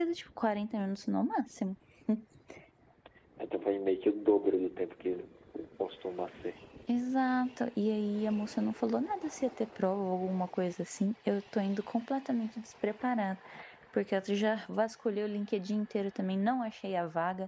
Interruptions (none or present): none